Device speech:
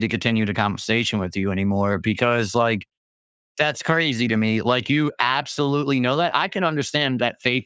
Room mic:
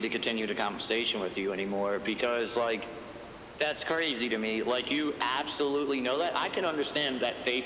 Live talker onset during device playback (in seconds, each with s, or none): none